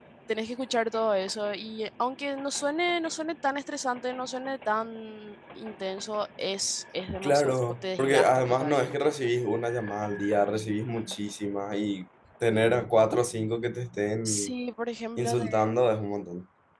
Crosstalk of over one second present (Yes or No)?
Yes